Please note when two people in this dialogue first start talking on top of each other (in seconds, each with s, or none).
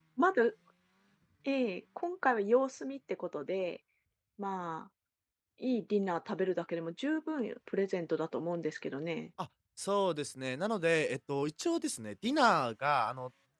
none